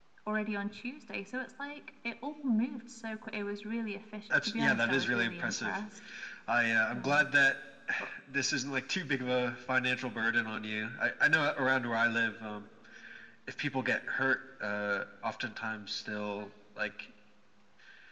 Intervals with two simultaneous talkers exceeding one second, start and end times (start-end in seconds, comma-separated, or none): 4.3-5.8